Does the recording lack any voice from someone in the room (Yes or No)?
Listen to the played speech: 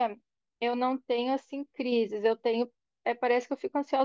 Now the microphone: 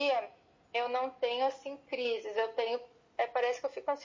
Yes